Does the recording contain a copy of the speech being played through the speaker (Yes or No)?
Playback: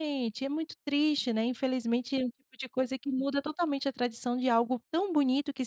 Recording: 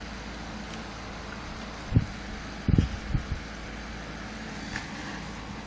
No